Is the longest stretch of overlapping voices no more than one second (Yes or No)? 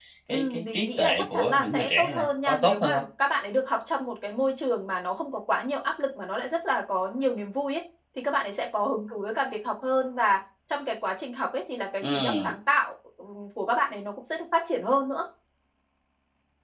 No